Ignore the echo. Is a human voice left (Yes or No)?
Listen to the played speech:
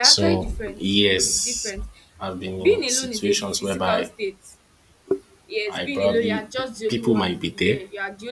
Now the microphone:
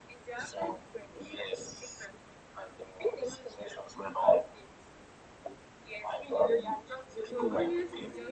Yes